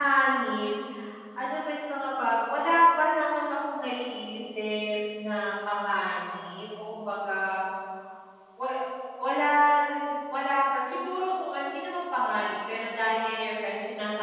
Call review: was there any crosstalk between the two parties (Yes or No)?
No